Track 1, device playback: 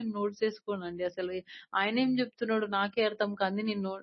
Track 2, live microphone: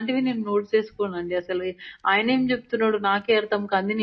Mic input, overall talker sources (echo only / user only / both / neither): echo only